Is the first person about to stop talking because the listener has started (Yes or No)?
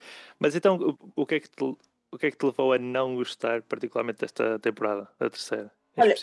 Yes